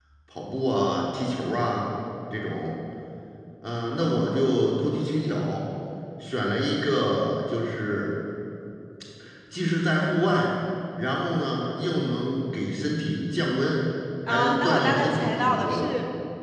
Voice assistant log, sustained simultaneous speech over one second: present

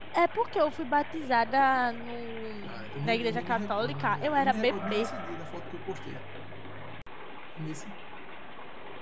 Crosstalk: present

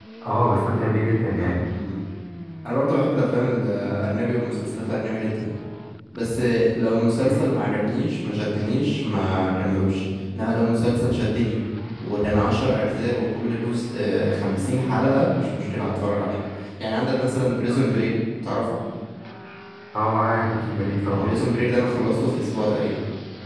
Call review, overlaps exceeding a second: none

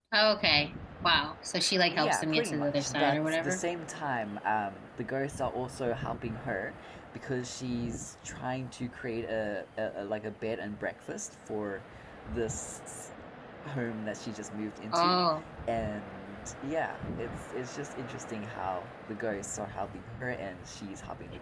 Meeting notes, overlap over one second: present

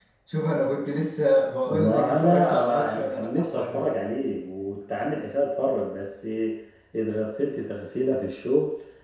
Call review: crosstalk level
present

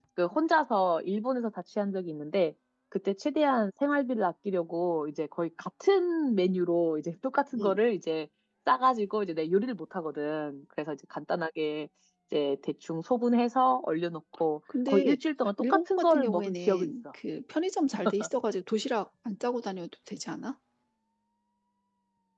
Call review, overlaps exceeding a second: present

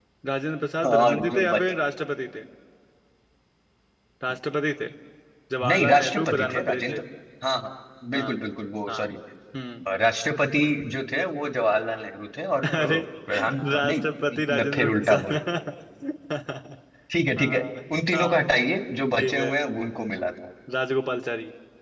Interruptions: present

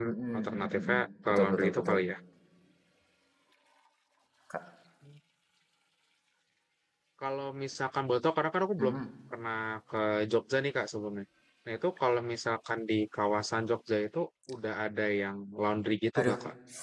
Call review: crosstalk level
present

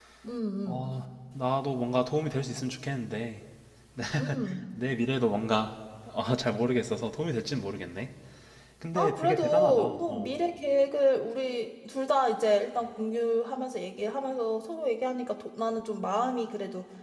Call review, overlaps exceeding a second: present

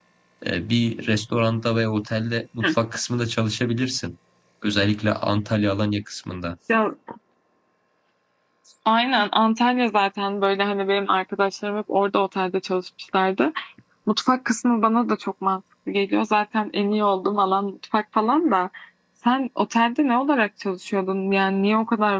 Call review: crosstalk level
none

